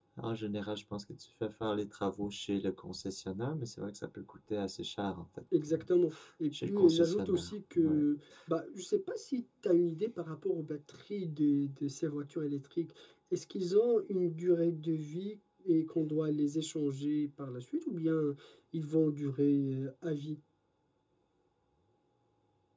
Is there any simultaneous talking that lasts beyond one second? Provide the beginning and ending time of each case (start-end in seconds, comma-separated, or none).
6.6-8.0